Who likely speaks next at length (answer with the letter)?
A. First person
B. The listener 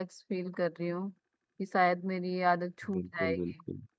B